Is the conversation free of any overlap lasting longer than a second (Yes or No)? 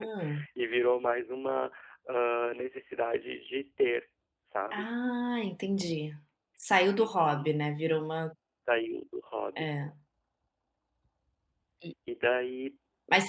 Yes